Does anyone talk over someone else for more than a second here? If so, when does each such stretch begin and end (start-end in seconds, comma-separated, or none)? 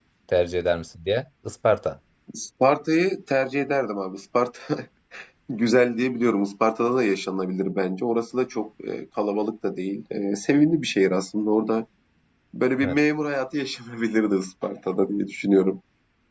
none